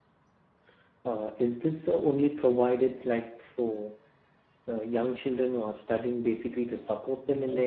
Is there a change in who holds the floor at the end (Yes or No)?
Yes